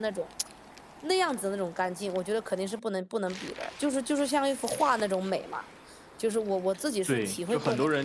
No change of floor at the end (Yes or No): No